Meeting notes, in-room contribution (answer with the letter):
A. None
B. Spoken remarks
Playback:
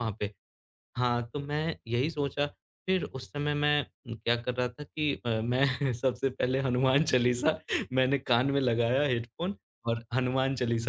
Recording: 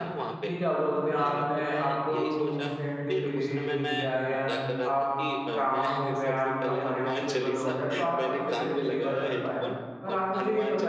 B